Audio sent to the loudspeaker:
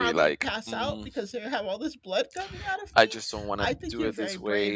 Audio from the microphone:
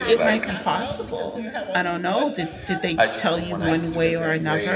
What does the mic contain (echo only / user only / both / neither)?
both